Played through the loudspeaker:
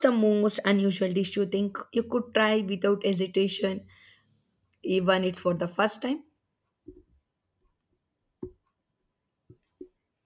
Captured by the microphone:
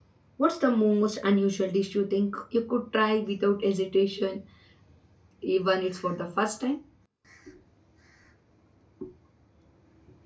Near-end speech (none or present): none